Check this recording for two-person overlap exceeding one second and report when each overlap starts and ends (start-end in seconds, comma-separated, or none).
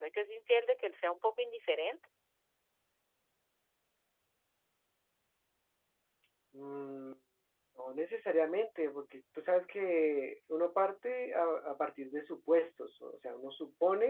none